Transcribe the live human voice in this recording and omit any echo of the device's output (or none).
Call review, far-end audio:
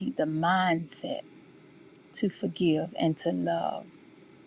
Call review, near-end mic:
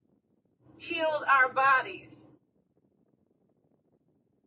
healed our bodies,